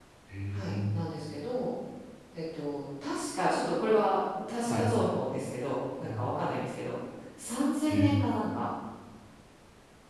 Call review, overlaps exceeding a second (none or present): none